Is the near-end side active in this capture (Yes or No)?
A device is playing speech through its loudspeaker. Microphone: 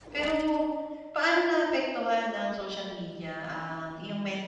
Yes